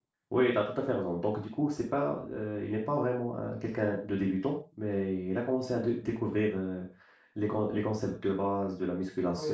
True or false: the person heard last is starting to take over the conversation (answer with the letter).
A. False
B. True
B